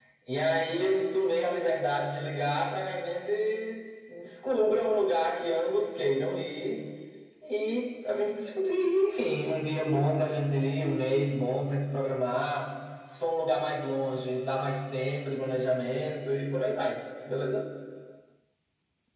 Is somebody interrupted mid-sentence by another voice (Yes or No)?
No